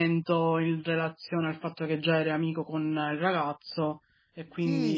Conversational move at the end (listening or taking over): taking over